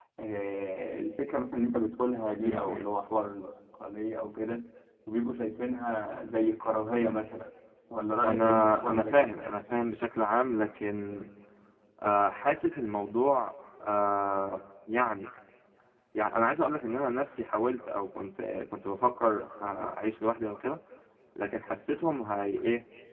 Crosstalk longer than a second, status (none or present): present